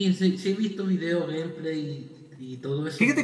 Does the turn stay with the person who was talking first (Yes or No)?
No